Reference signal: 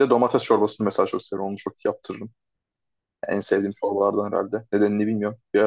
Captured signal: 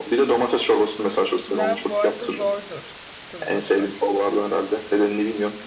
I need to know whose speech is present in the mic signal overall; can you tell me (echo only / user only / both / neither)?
both